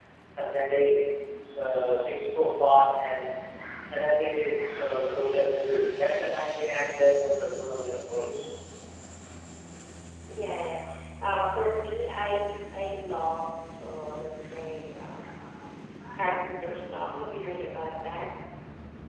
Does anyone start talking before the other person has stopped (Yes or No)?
No